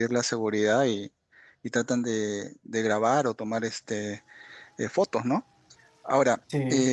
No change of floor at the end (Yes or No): Yes